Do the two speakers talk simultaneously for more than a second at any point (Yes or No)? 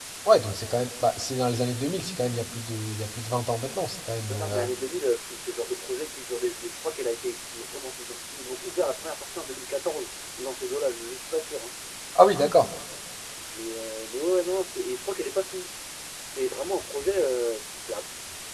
No